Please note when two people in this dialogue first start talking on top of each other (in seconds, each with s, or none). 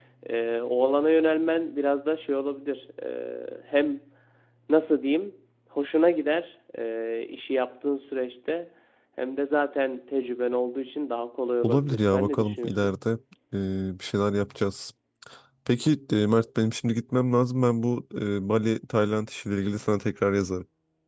11.6 s